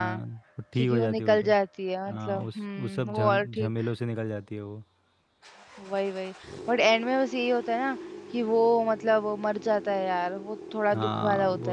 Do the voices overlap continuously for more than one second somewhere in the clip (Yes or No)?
Yes